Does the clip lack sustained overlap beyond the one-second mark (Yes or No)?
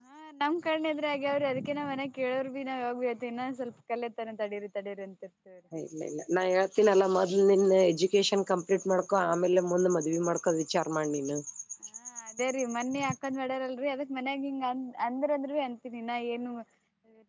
Yes